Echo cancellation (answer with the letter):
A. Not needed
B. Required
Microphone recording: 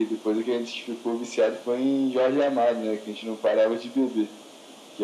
B